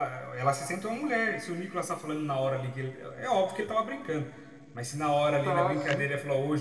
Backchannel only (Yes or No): Yes